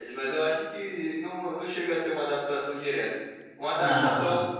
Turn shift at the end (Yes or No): No